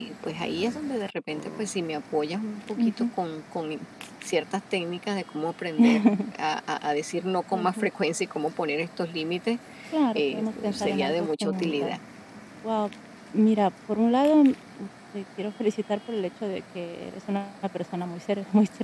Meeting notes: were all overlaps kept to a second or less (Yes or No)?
No